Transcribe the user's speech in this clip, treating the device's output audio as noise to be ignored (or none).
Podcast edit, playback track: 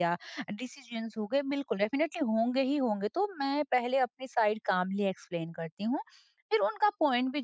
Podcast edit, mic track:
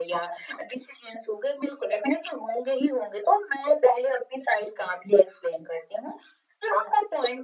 none